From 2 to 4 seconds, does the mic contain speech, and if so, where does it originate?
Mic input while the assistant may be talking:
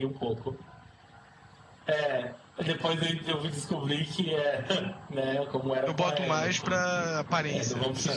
echo only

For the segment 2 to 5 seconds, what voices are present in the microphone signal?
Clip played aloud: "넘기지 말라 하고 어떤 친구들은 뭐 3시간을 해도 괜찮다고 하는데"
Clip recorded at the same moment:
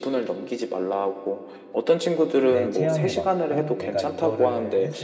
both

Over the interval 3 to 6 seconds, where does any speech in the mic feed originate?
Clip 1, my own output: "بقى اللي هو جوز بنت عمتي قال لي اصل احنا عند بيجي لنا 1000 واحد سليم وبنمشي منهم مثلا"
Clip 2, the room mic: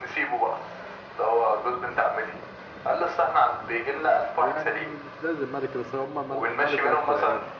both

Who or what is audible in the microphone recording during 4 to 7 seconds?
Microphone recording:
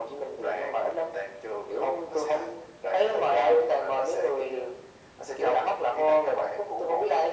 echo only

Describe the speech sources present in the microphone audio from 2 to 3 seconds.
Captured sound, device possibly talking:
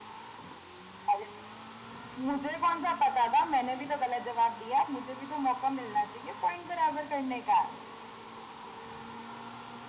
echo only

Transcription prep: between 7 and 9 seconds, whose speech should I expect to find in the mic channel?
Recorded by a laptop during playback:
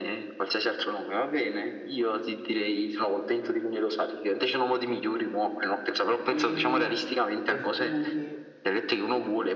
both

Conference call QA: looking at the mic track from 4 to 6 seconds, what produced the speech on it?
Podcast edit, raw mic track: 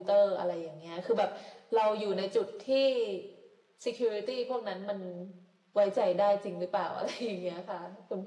echo only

